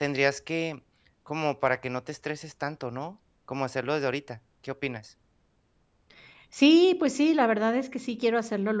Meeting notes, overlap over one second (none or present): none